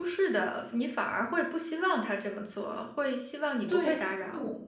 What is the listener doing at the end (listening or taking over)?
taking over